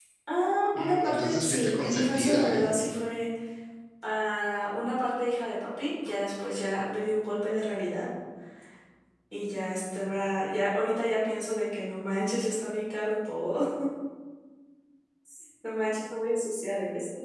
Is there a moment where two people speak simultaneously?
Yes, from 0.8 s

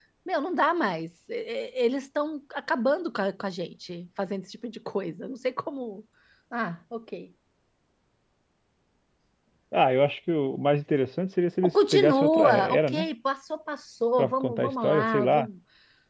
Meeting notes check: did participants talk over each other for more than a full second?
Yes, from 11.6 s

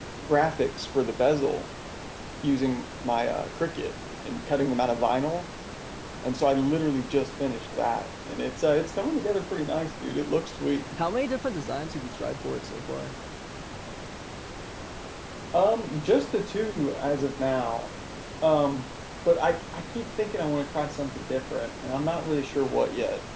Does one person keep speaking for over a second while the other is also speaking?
No

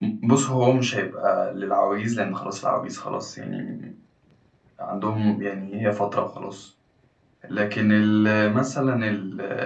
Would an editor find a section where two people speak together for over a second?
No

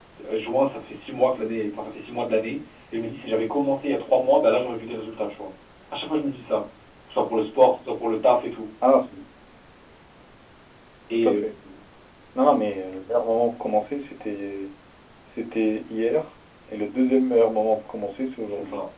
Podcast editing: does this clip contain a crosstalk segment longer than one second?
No

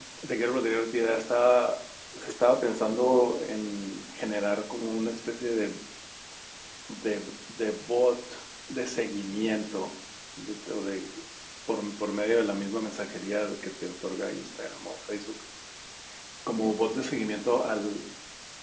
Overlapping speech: No

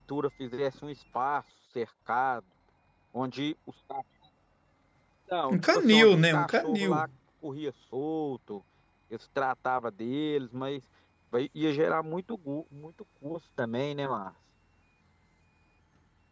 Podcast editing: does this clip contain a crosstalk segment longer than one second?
Yes, from 5.5 s

